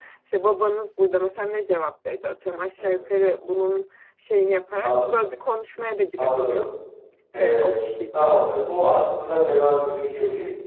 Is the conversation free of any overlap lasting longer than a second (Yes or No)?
Yes